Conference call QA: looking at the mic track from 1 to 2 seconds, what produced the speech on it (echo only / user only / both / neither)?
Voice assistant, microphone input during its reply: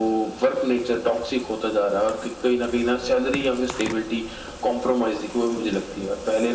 echo only